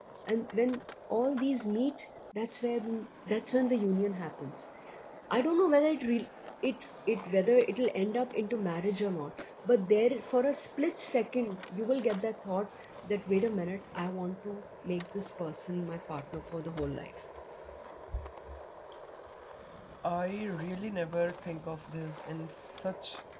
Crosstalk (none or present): none